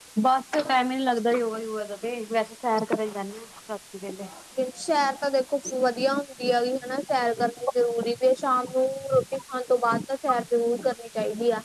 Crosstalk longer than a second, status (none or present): none